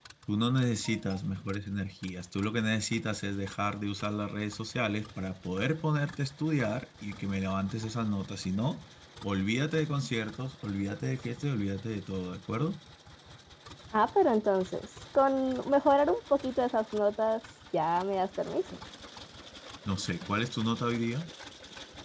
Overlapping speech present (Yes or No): No